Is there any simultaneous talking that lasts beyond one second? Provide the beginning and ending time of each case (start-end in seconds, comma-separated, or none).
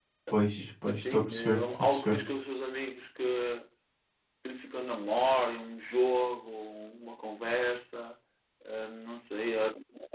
0.8-2.2